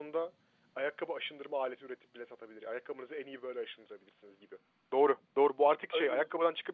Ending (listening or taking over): listening